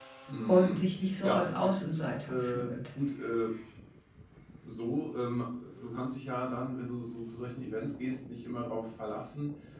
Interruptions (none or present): present